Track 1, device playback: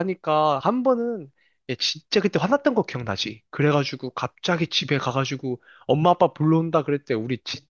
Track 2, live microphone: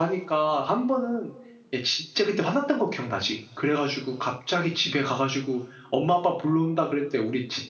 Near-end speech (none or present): none